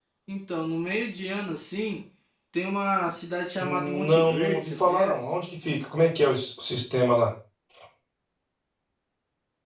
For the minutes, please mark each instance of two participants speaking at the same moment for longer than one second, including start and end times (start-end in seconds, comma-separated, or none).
3.6-5.3